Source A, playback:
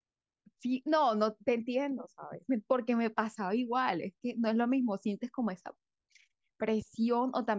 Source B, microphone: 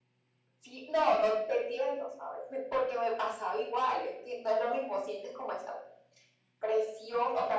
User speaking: No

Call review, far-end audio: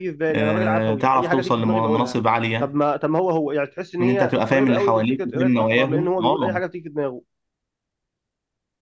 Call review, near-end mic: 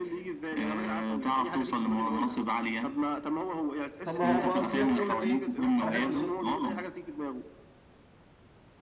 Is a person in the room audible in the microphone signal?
Yes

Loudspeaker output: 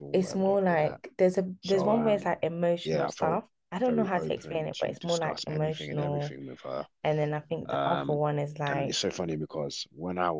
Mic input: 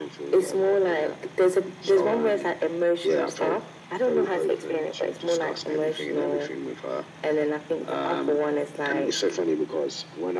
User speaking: No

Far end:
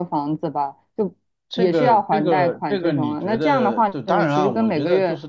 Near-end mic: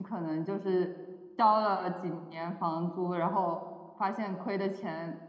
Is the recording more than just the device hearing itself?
Yes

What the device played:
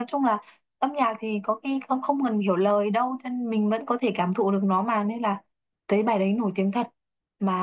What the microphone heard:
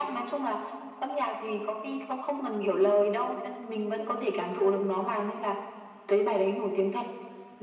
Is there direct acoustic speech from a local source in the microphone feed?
No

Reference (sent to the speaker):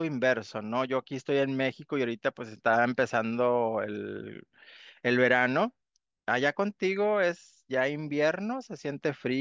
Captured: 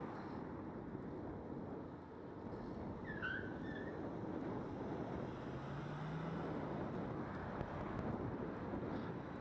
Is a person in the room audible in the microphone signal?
No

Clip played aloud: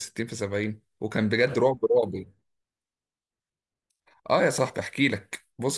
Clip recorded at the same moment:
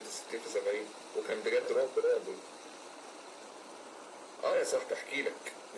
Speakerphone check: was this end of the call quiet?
Yes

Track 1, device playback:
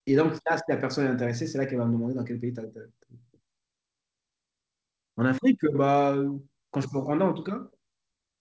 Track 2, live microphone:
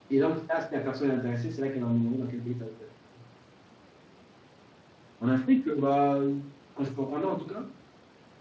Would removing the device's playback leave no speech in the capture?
Yes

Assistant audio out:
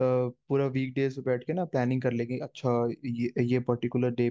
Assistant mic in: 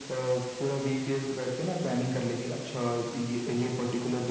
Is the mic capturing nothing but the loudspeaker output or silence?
Yes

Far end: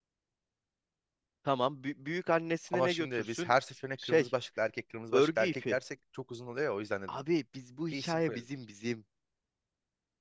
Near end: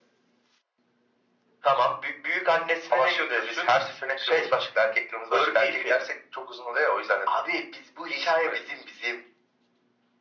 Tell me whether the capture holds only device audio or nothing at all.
Yes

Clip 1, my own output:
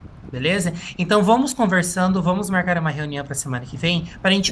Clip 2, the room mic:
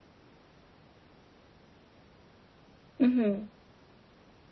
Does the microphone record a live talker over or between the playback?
Yes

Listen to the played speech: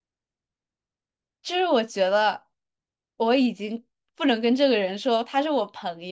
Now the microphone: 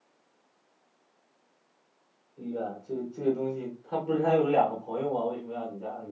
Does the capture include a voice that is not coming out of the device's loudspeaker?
Yes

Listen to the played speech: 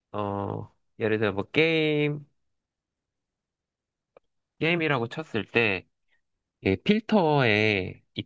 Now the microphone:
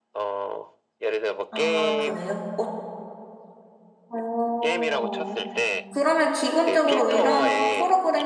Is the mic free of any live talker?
No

